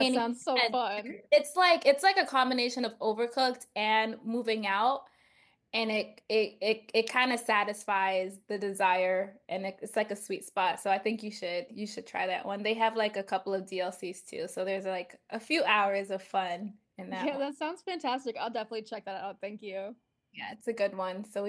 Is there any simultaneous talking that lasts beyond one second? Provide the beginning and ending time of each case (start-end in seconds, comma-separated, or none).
none